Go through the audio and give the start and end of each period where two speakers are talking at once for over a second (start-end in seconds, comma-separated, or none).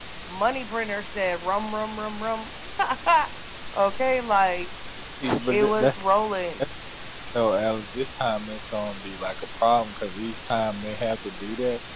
none